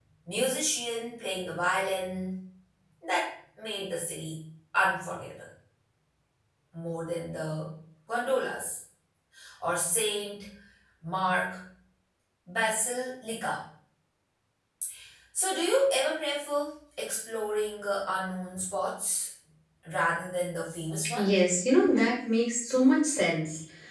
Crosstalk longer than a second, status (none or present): none